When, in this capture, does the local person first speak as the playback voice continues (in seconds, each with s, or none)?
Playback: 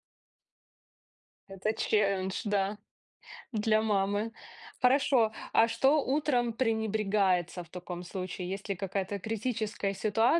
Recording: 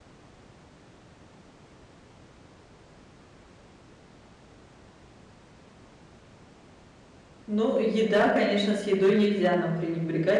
7.5 s